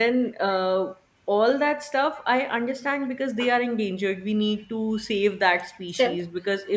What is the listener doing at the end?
listening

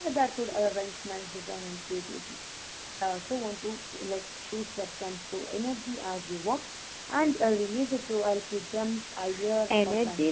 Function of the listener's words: taking over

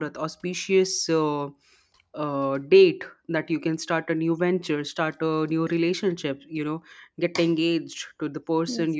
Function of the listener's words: listening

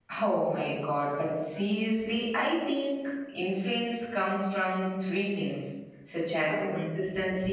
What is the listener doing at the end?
listening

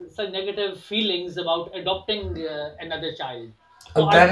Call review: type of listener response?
taking over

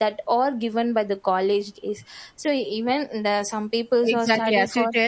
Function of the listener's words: taking over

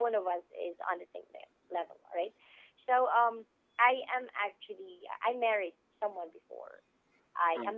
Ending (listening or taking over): listening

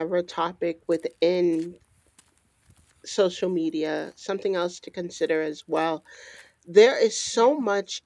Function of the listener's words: listening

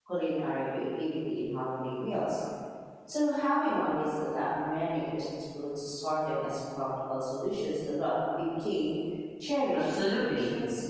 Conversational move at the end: taking over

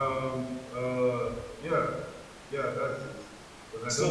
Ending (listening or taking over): taking over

